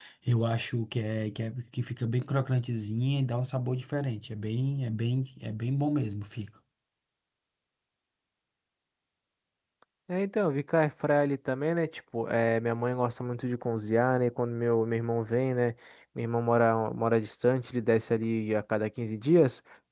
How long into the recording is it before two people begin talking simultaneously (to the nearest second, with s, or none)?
none